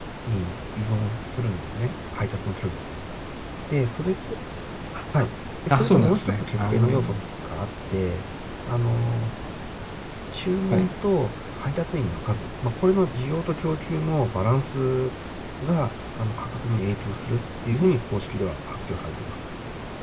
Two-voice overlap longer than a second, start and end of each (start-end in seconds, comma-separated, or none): 5.7-7.2